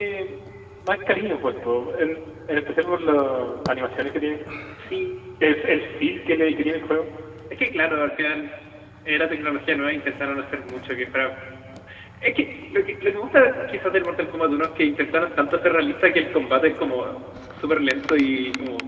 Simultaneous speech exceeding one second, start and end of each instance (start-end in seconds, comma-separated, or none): none